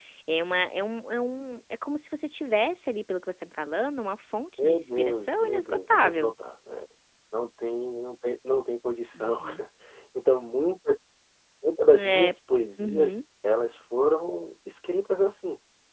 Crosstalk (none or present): present